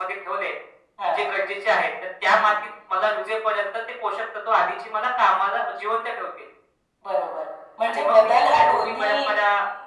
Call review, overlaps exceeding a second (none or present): present